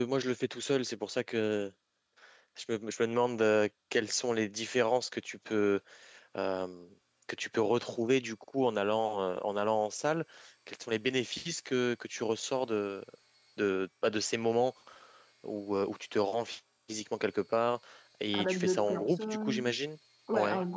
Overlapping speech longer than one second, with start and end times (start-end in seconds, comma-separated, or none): 18.3-19.6